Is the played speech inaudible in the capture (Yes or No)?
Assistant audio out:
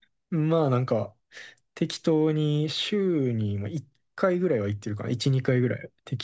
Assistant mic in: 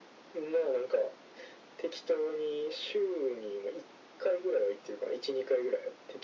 No